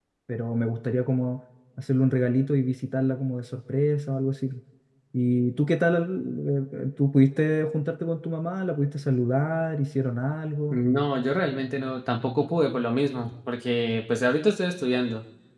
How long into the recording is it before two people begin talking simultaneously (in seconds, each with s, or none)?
none